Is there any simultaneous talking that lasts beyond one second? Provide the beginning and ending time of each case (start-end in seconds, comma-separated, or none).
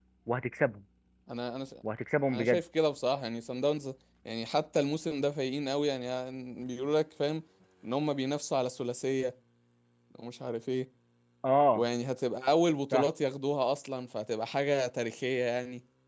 none